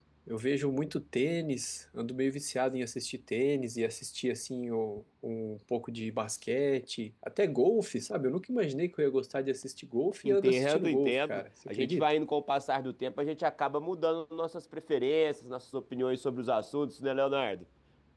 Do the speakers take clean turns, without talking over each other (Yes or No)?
No